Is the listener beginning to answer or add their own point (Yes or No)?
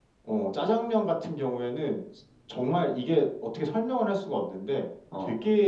No